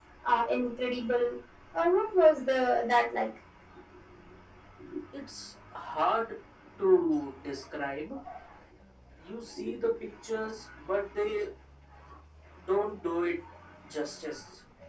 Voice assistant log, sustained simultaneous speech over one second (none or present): none